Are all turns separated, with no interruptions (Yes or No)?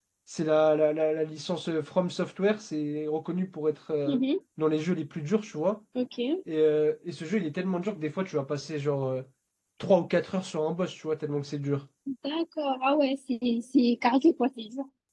Yes